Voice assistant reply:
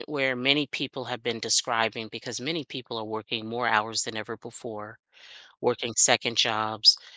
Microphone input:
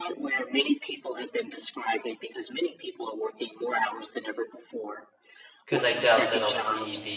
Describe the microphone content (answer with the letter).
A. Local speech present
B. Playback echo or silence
A